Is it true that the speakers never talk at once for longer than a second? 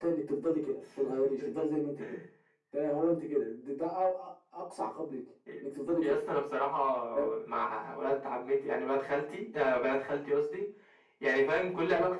Yes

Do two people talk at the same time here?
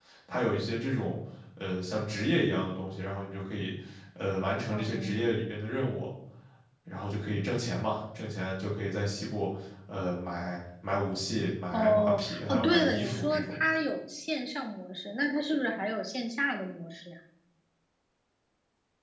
Yes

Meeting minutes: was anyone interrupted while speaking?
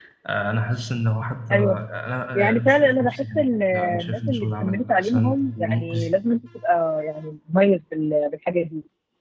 Yes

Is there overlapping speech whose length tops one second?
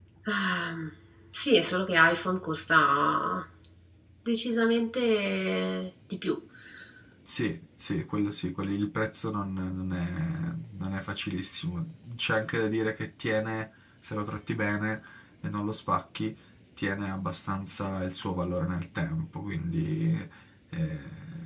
No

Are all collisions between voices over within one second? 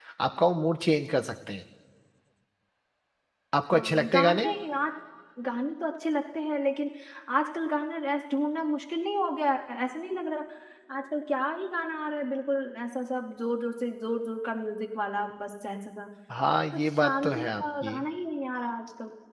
No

